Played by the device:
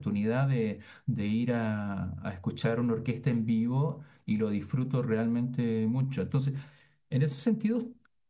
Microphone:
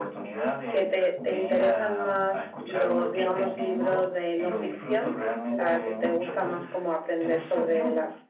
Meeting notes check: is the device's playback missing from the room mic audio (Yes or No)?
No